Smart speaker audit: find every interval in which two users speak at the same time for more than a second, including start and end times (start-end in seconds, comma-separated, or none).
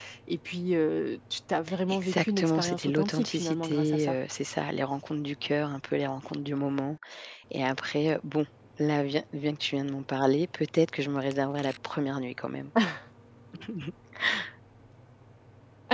1.9-4.2